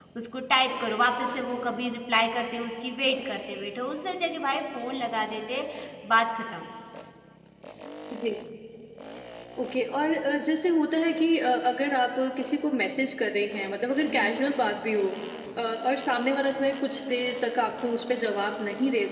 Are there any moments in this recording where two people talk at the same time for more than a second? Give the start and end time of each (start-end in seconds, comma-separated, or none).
none